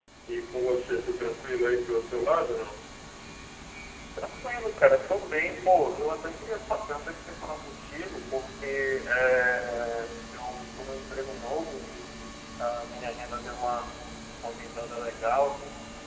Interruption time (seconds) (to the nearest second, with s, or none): none